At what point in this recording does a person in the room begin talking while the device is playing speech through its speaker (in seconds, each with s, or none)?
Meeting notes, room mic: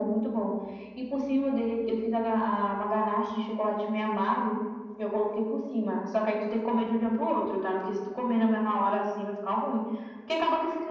none